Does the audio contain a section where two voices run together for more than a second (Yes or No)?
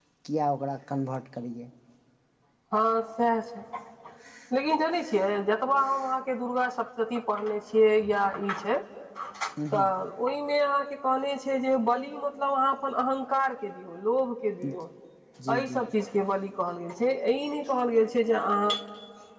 No